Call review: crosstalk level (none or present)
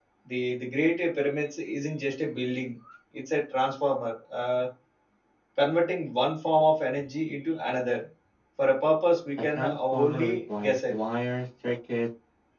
present